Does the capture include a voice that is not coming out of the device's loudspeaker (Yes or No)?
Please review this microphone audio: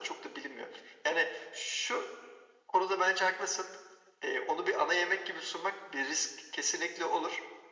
No